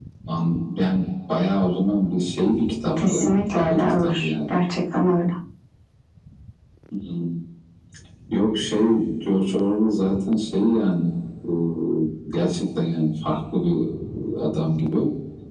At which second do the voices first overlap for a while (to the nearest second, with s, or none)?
3 s